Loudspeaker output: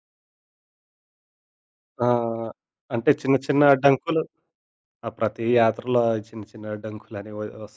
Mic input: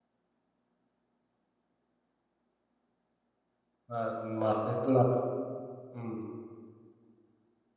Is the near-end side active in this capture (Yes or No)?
Yes